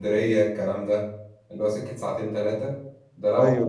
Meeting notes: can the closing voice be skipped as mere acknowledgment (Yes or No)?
Yes